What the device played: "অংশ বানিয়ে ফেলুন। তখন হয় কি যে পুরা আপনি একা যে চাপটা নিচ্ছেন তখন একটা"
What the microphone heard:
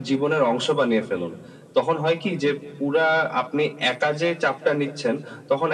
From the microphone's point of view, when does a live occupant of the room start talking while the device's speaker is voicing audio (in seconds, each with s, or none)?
none